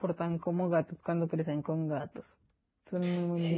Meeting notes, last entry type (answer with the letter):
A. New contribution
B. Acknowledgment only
A